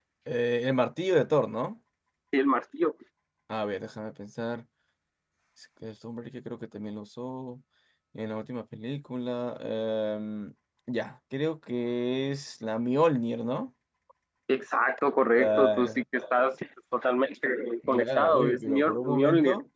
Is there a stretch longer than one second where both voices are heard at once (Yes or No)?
Yes